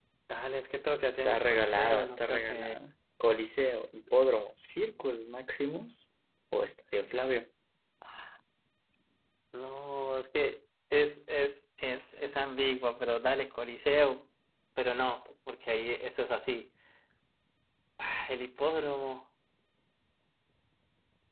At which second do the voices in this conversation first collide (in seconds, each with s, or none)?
1.2 s